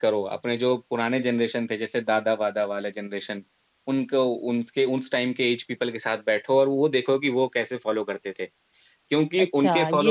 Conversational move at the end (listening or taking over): taking over